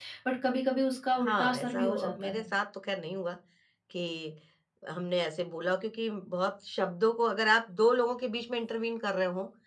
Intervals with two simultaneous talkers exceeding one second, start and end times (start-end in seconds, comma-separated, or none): 1.2-2.4